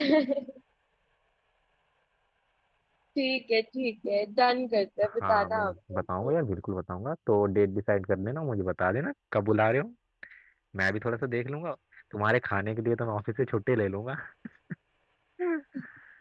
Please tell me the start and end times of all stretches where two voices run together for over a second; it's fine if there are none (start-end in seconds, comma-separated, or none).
5.0-6.3